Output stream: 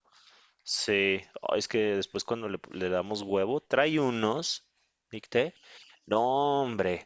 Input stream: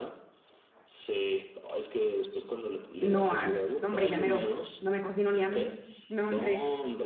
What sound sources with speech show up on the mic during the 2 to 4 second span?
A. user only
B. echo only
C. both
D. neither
C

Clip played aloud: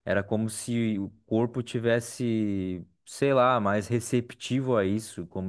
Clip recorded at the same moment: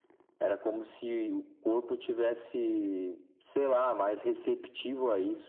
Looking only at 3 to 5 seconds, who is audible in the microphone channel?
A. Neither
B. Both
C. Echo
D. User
C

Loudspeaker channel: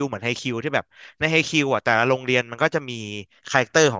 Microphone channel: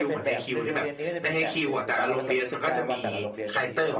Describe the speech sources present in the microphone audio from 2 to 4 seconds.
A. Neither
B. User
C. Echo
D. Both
D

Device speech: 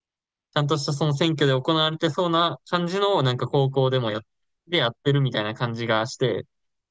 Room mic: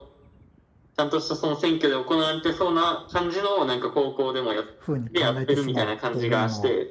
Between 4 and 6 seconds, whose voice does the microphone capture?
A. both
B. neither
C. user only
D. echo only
A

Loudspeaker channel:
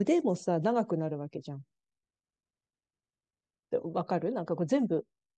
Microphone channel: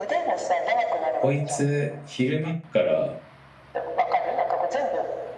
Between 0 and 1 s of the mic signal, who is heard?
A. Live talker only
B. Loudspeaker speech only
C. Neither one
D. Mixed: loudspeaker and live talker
B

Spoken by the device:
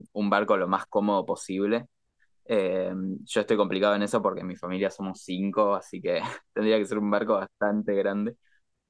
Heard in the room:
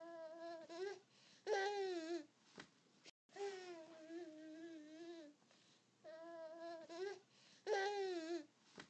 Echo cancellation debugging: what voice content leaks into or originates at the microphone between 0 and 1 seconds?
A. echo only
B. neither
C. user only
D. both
B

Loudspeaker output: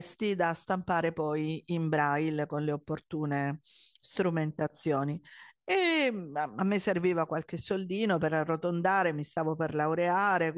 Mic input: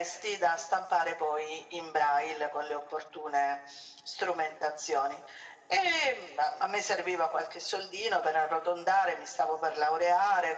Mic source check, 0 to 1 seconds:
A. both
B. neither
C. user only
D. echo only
D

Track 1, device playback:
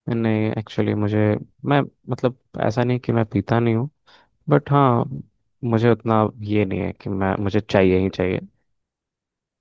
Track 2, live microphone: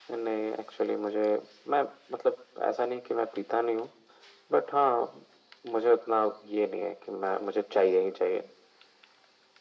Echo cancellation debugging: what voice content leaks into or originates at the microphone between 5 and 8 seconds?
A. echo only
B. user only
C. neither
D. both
A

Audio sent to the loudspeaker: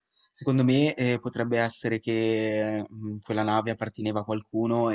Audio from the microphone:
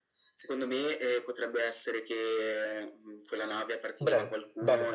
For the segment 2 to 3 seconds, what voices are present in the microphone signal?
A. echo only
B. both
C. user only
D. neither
A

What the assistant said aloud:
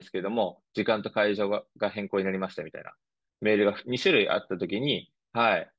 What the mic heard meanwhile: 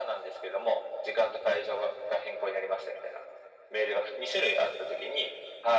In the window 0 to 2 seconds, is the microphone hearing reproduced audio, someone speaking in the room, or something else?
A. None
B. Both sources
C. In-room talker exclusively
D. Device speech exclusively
D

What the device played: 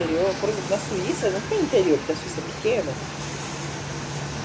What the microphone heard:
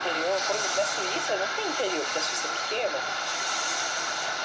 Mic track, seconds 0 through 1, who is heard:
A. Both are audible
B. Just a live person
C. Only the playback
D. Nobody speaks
C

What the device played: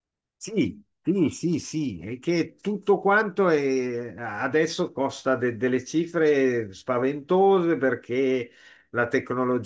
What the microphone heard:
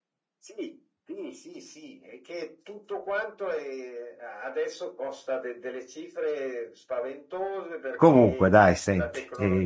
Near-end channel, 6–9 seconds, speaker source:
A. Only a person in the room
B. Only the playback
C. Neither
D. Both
D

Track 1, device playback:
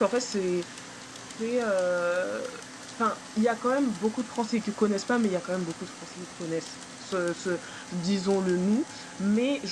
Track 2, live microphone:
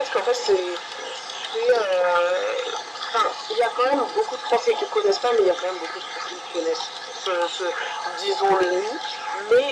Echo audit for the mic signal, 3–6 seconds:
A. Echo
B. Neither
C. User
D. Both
A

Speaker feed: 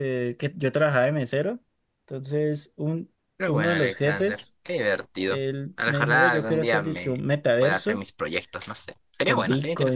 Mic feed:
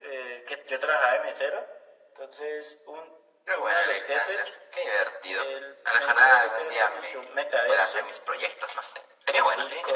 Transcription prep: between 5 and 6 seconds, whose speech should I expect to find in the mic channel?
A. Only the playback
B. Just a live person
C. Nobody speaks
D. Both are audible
A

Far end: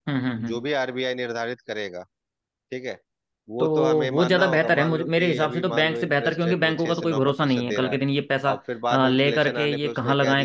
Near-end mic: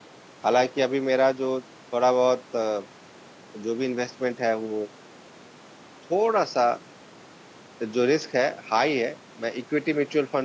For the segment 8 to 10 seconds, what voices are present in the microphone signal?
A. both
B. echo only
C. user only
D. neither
C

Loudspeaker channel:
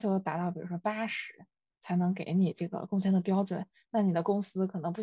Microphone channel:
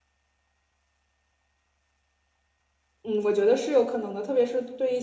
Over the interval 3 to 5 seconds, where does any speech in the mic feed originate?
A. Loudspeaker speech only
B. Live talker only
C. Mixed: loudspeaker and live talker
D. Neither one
B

